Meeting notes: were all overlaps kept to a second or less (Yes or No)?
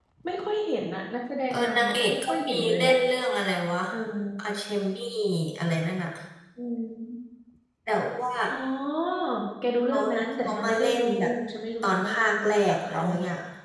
No